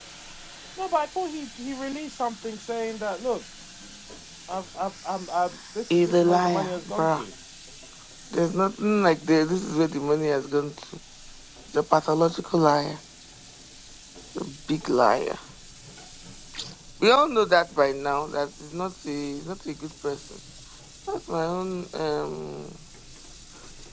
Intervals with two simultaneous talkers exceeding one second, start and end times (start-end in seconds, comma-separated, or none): 6.0-7.2